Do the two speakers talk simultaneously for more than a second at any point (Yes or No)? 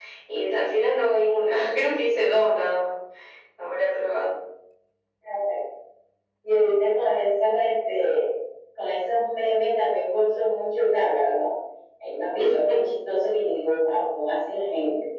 No